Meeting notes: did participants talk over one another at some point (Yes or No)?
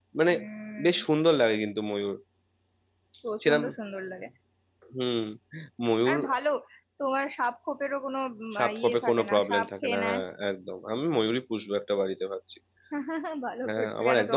Yes